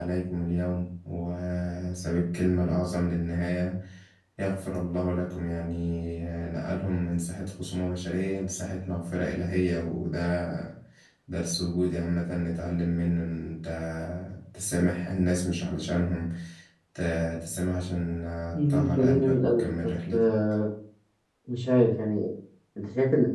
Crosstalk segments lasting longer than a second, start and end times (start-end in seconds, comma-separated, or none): 18.6-20.2